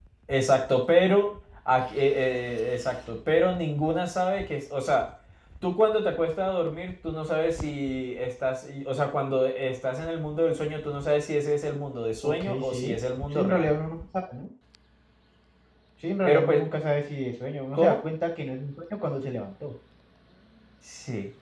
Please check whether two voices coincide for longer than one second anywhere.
Yes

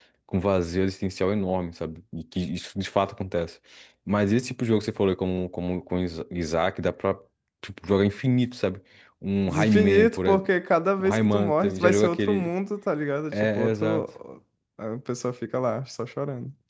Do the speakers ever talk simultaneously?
Yes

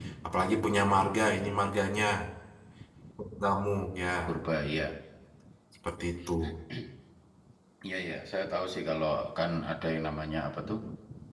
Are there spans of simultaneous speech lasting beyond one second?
No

